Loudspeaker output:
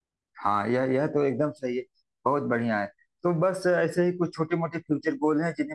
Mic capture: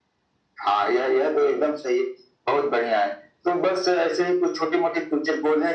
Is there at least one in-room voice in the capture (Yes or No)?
No